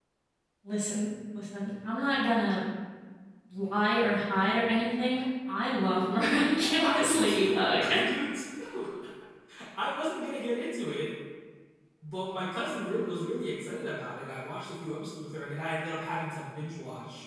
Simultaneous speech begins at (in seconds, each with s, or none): 6.6 s